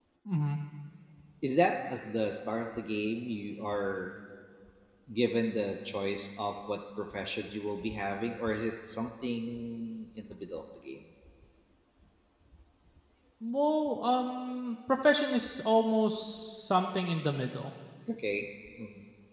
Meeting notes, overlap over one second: none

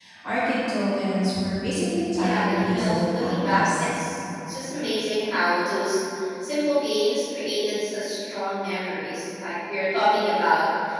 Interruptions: present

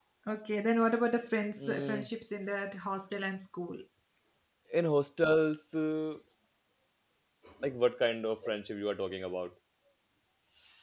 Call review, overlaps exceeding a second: none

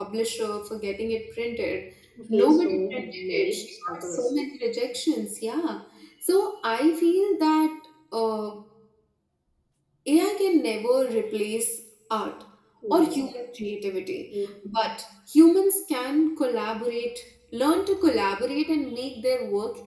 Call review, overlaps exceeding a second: present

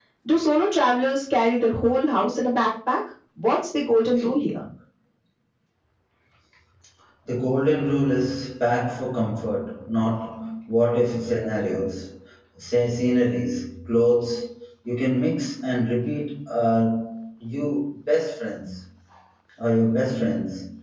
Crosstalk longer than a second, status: none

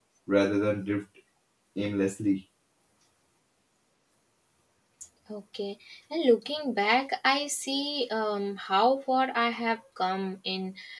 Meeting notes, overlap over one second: none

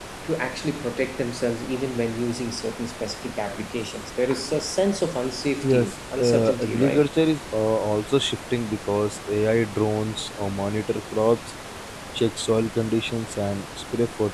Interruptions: present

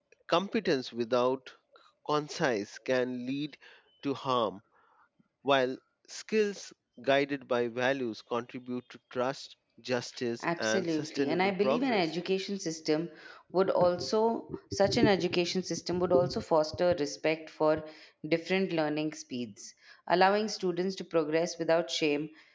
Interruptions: present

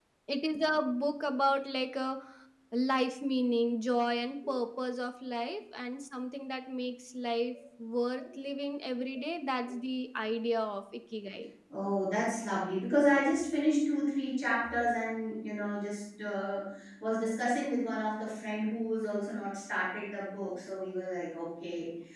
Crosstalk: none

